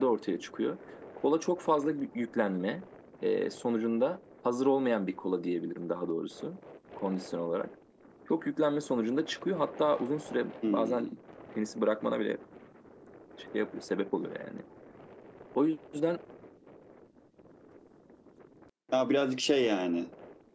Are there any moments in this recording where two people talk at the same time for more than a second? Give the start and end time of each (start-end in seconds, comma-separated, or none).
none